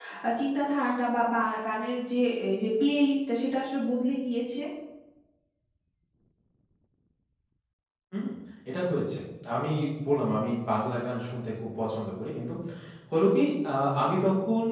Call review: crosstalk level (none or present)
none